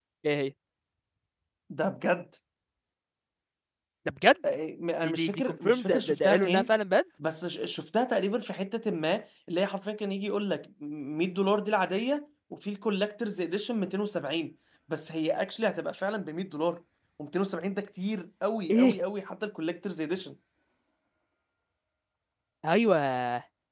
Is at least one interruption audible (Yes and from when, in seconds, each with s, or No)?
Yes, from 5.0 s